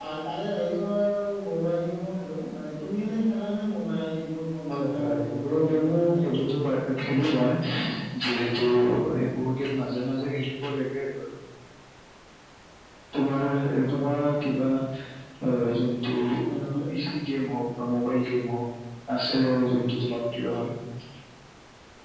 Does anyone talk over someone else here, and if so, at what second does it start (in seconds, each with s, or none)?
4.7 s